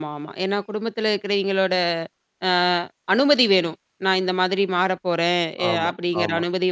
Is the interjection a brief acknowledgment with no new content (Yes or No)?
Yes